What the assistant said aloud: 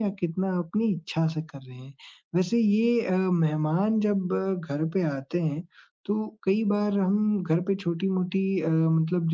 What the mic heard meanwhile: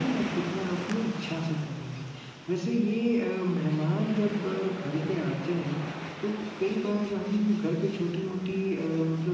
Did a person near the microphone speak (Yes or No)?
No